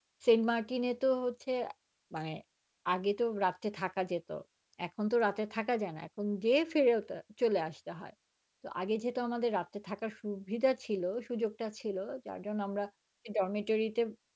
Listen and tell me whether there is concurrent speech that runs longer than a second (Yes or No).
No